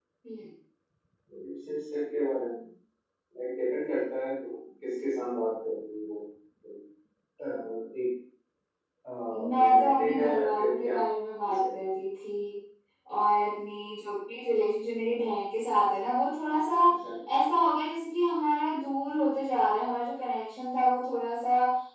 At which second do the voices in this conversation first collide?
9.6 s

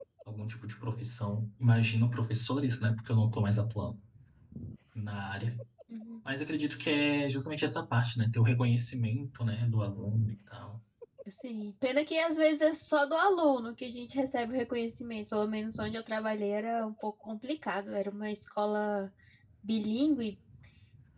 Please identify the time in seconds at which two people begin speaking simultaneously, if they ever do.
none

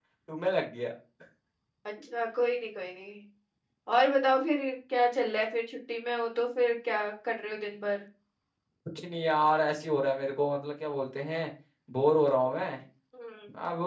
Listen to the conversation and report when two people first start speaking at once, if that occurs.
none

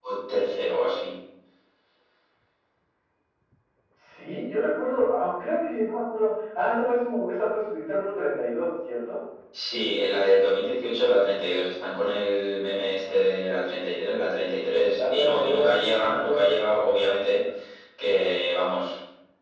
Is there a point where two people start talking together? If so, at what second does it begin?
15.0 s

